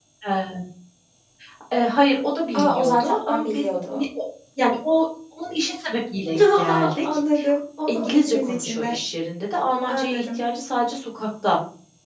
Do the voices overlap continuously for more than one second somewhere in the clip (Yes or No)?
Yes